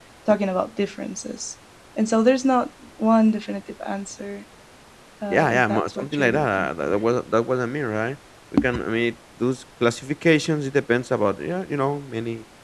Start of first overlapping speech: 5.3 s

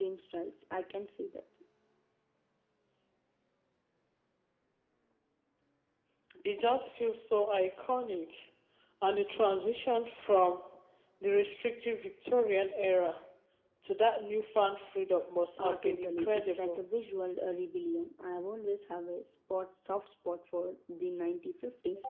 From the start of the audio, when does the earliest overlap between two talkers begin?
15.6 s

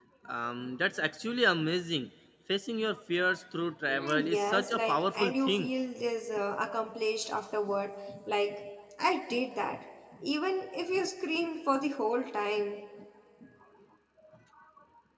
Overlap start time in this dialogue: 3.9 s

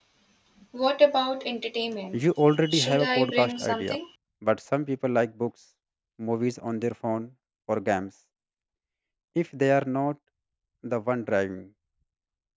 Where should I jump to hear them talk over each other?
2.7 s

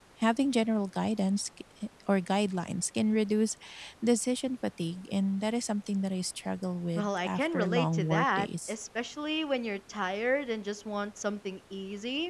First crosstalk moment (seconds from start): 7.0 s

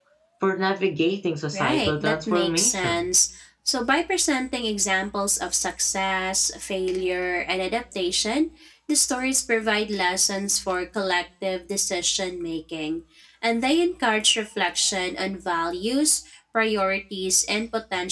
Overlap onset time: 1.5 s

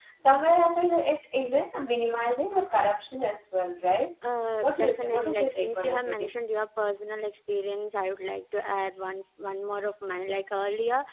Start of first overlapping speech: 4.6 s

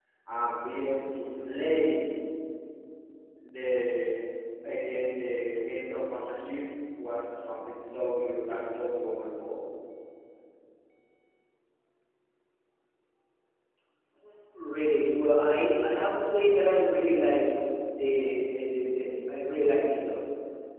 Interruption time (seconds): none

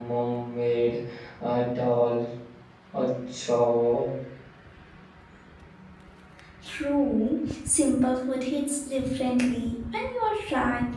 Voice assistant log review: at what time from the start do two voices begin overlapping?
none

